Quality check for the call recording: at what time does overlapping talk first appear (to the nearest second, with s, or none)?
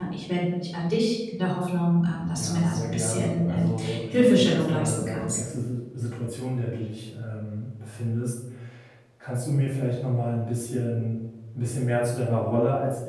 2 s